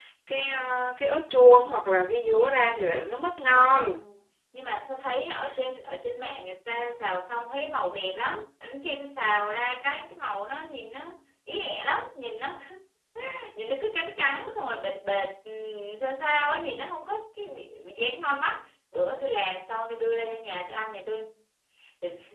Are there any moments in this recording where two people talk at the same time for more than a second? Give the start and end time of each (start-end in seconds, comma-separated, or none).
none